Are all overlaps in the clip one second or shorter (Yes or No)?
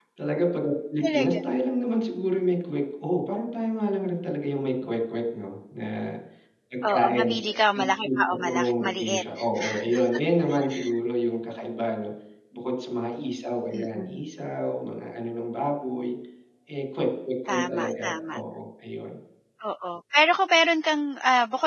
No